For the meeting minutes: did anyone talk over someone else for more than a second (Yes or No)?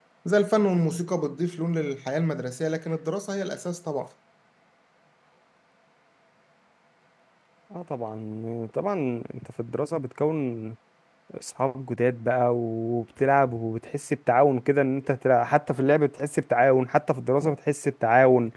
No